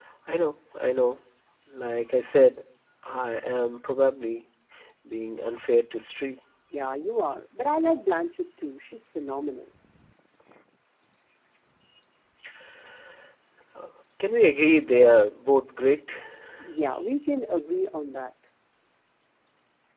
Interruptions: none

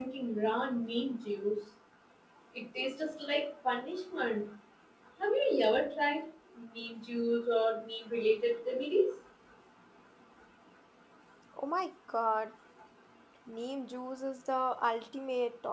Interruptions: none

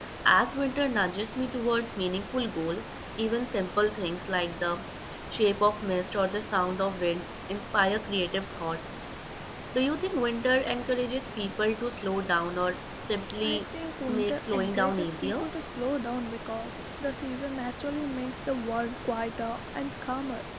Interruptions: present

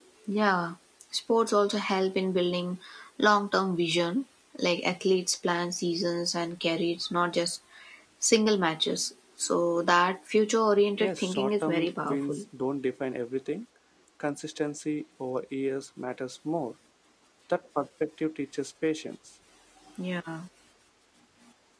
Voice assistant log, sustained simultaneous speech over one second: present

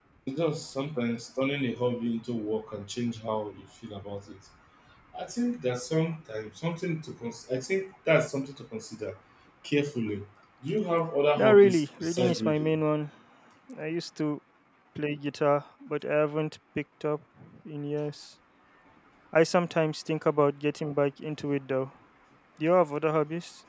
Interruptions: present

